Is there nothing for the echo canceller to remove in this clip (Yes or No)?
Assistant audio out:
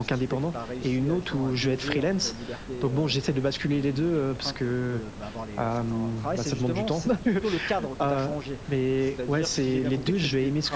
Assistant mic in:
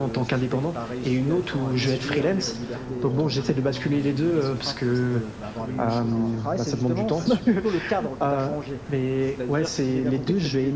No